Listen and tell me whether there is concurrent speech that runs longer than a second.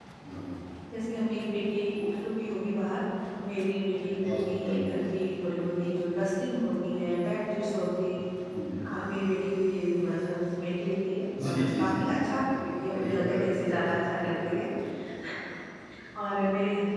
Yes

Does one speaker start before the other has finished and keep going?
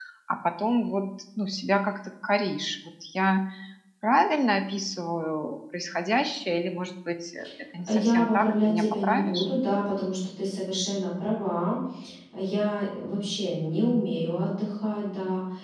Yes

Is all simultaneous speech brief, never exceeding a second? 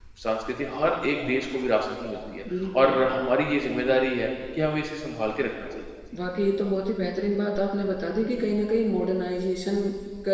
Yes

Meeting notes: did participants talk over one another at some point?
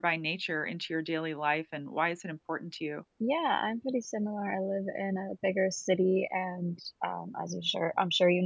No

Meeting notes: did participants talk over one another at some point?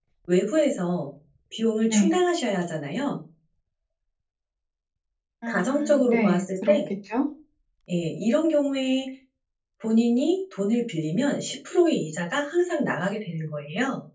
Yes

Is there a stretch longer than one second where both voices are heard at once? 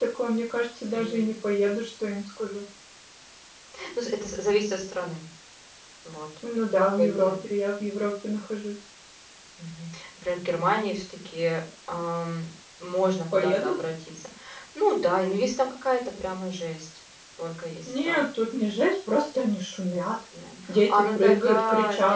Yes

